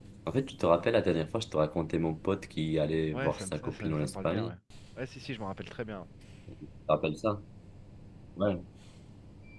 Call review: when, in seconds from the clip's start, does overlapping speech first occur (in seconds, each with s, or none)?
3.1 s